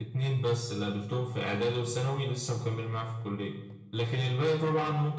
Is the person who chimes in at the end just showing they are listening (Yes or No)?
Yes